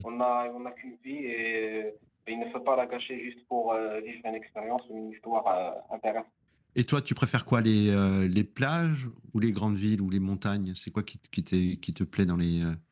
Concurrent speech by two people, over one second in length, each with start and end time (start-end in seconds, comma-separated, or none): none